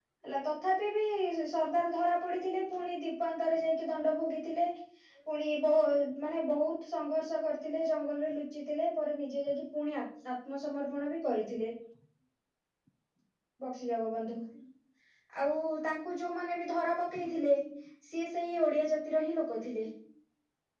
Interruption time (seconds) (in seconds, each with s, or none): none